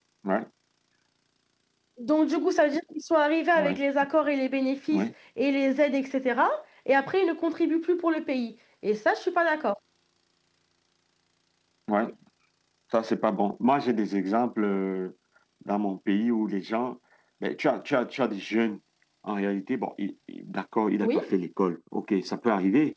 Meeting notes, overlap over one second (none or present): none